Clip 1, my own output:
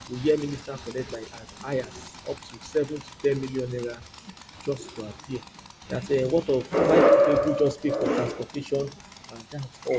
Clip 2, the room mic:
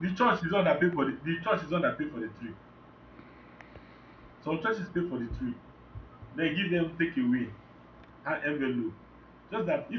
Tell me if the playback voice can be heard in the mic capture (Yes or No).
No